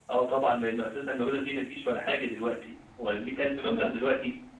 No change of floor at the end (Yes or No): Yes